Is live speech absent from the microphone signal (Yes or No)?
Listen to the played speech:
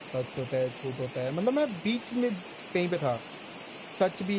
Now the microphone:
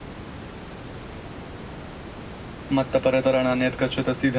No